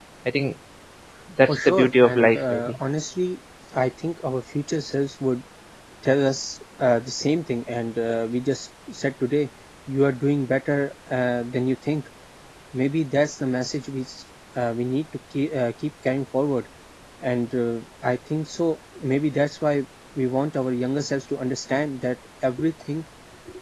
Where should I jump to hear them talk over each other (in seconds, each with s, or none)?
1.5 s